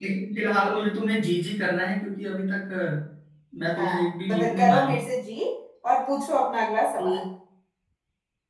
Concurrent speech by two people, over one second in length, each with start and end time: 3.8-5.0

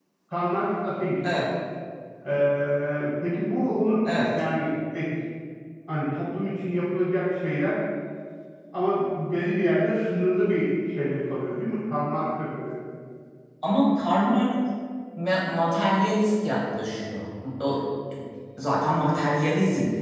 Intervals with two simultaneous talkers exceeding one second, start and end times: none

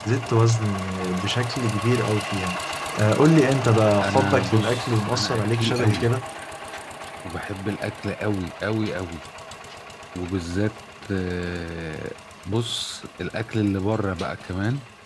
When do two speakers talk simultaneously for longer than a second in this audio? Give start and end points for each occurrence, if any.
4.0-6.1

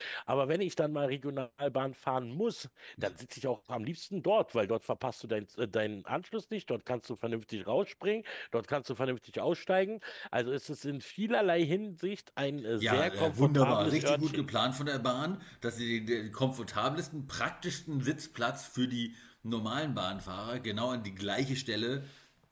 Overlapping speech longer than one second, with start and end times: 12.8-14.4

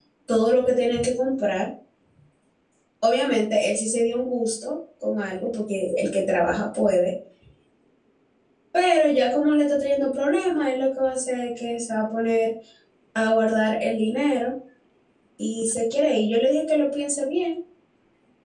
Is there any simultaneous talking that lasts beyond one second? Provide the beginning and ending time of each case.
none

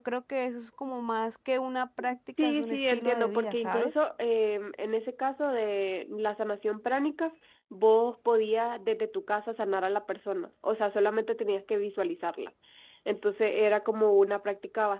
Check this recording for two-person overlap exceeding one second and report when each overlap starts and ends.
2.4-4.0

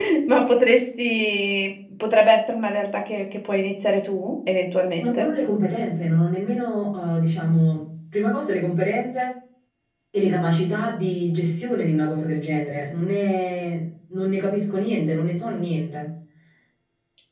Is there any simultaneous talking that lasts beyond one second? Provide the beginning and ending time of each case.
none

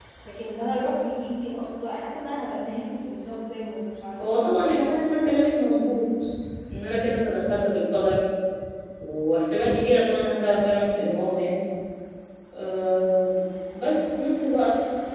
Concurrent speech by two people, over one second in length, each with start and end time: none

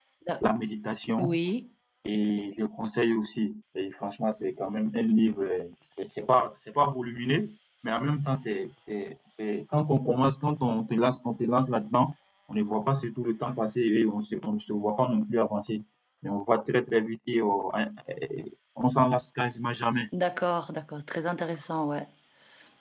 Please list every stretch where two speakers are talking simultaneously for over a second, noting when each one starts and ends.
none

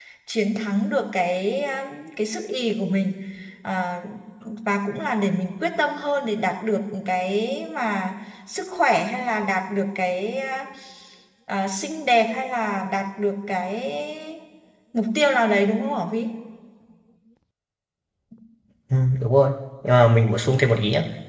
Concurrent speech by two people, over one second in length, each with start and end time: none

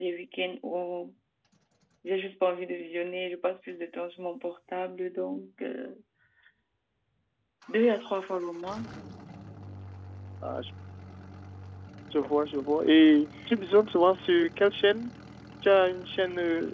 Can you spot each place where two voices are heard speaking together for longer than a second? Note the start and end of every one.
none

